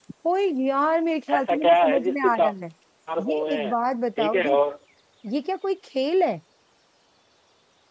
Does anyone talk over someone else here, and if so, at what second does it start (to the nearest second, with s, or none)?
1 s